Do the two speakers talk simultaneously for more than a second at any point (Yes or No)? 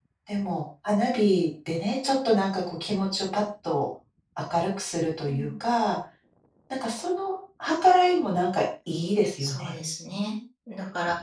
No